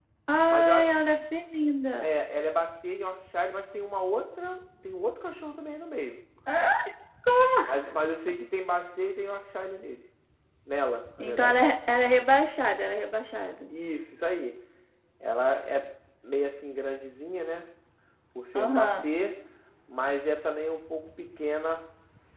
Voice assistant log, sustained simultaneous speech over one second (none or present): none